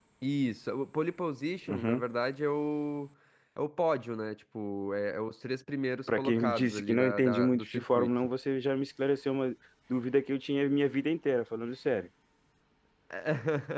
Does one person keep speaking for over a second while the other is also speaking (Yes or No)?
Yes